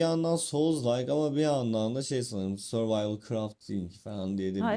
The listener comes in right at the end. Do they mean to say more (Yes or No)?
Yes